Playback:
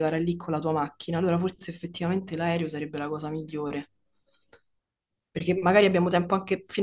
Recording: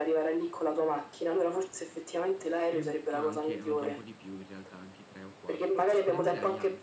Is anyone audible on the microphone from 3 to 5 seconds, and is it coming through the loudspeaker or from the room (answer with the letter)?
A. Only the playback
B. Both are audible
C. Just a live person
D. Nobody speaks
B